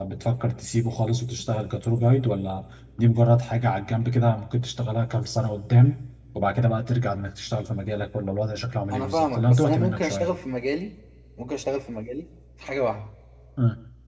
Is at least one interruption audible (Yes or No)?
Yes